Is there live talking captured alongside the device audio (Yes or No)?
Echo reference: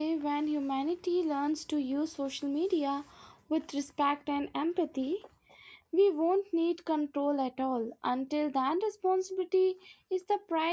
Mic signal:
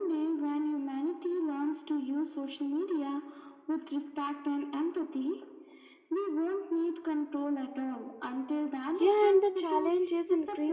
Yes